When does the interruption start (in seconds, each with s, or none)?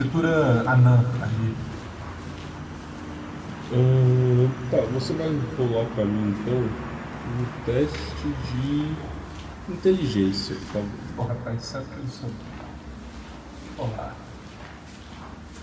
none